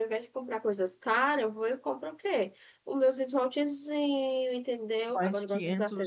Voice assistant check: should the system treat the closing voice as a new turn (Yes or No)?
Yes